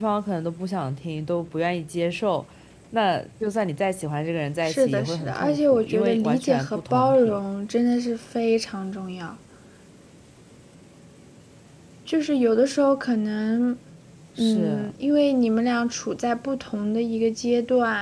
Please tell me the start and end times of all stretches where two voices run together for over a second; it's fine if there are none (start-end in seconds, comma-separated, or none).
4.6-7.4